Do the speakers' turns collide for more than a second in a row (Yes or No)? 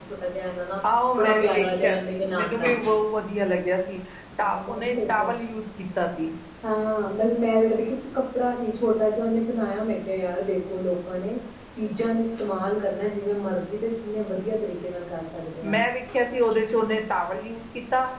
Yes